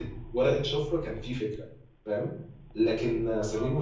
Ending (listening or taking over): listening